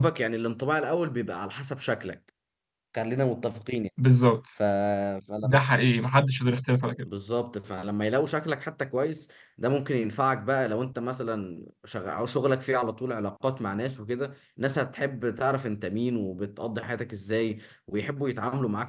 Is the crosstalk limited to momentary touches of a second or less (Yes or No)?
Yes